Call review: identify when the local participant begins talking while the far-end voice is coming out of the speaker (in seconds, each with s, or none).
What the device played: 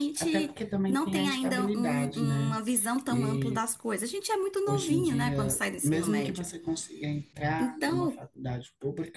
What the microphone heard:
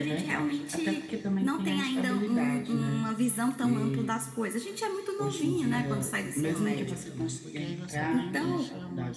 5.7 s